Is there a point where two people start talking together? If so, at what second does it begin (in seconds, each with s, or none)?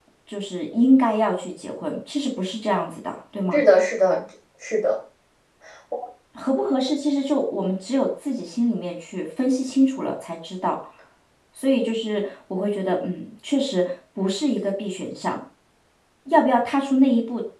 none